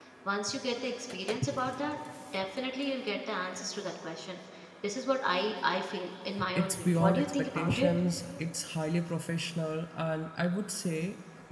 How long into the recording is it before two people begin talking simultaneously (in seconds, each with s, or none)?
6.6 s